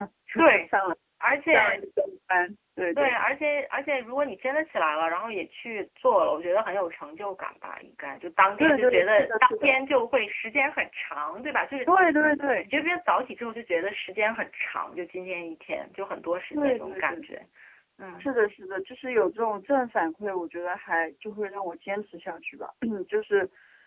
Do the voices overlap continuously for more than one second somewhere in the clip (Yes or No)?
Yes